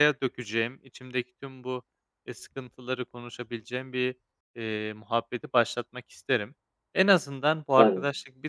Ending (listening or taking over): listening